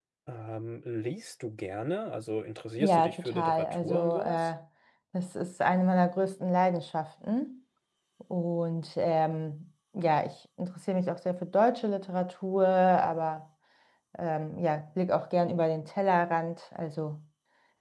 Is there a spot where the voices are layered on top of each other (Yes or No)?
Yes